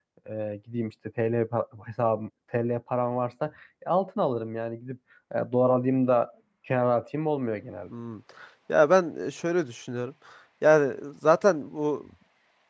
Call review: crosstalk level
none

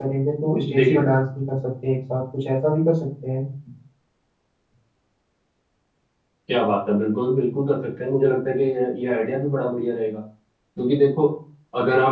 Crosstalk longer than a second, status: none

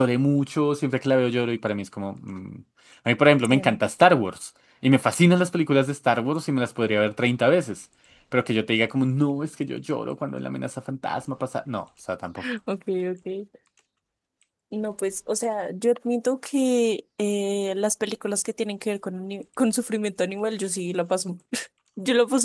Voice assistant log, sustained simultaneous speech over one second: none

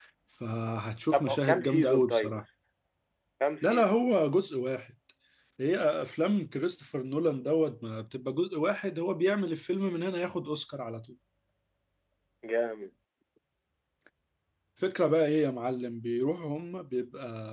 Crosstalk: present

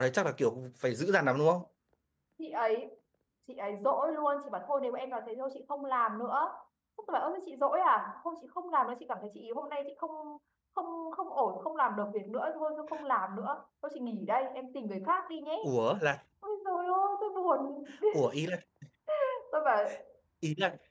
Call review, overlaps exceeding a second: none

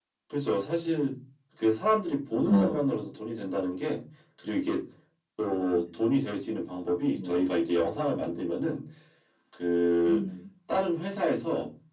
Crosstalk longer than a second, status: none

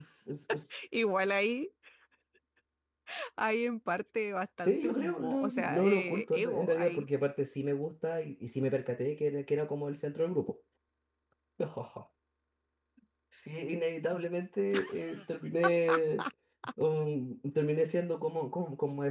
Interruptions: present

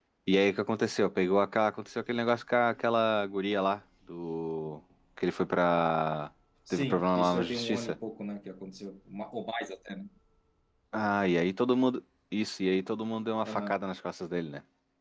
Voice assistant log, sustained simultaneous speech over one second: present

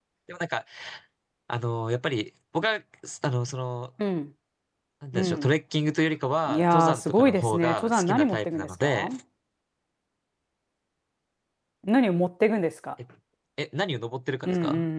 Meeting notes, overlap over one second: present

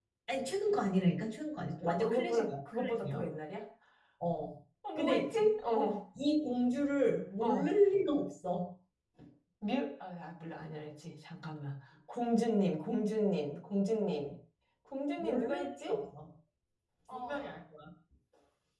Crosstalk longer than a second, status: present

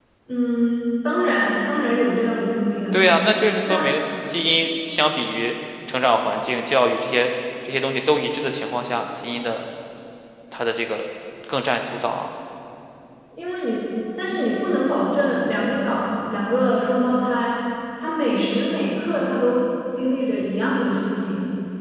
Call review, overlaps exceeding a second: none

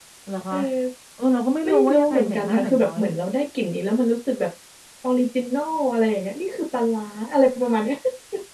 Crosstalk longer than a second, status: present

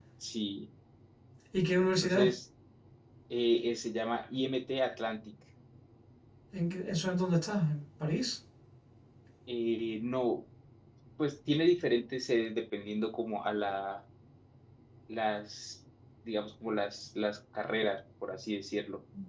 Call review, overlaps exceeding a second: none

